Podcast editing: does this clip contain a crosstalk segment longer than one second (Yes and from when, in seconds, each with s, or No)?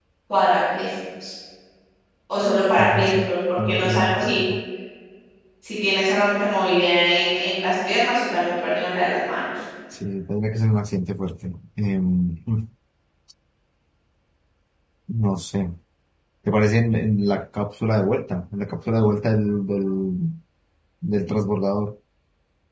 Yes, from 2.8 s